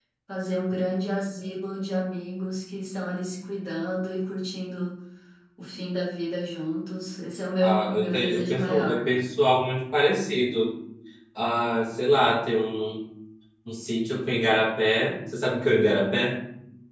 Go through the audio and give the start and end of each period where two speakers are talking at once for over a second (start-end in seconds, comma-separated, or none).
7.6-9.1